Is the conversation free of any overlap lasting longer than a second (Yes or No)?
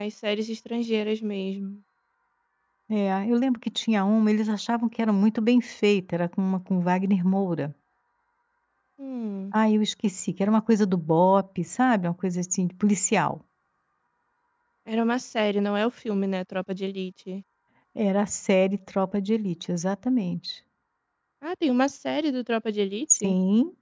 Yes